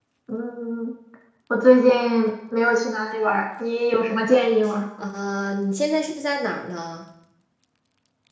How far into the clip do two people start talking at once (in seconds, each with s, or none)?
none